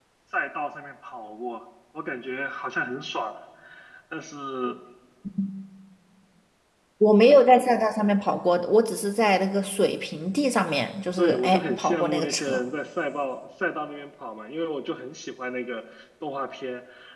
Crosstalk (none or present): present